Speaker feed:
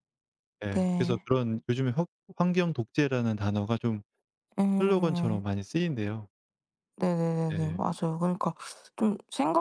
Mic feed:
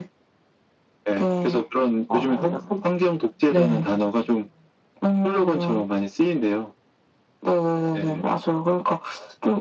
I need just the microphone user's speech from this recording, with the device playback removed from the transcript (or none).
아 약간 네.